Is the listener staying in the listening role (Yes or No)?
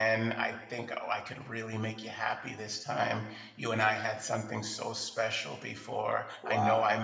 Yes